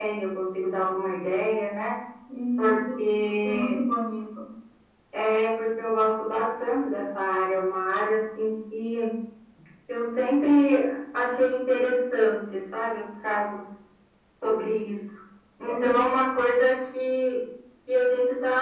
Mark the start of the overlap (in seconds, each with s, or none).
2.6 s